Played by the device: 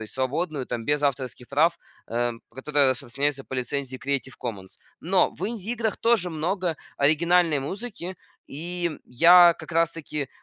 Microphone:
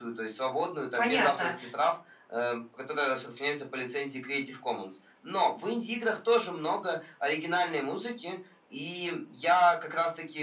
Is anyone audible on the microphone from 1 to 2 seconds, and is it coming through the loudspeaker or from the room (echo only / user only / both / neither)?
both